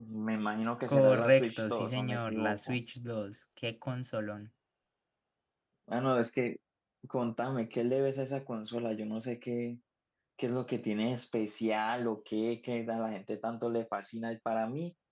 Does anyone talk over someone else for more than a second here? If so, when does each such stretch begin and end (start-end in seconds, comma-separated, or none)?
0.9-2.8